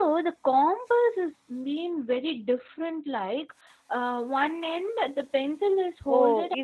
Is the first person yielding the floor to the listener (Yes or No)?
Yes